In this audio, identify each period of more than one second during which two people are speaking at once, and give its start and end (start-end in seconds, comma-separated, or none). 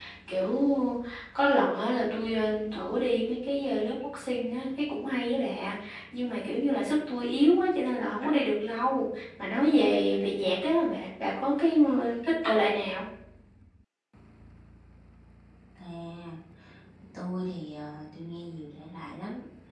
none